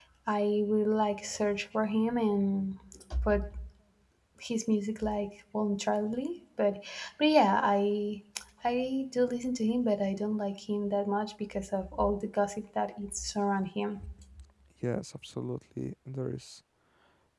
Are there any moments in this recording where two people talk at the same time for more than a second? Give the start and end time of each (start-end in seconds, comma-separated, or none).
none